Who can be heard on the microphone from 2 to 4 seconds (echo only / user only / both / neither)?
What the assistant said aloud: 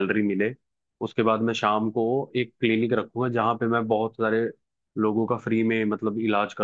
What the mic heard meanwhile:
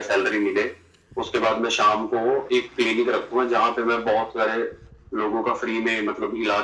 echo only